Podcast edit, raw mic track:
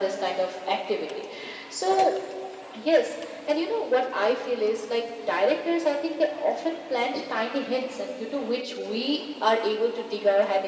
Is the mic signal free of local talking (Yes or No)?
Yes